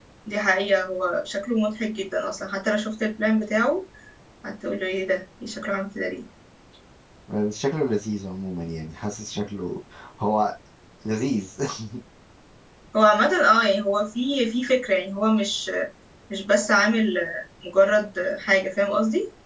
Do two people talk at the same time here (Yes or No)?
No